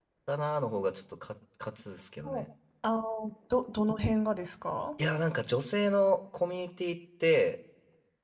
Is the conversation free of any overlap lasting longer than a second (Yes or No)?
Yes